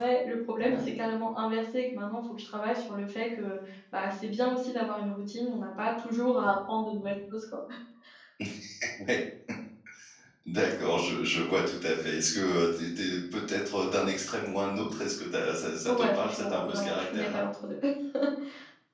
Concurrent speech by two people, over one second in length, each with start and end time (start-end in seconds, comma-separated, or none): 15.9-17.4